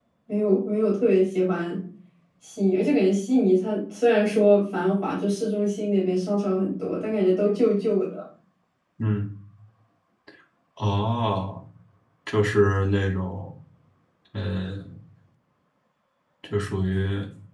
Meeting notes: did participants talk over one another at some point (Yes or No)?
No